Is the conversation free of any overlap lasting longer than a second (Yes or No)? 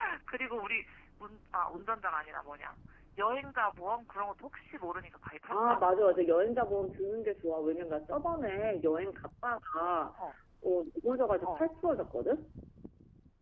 Yes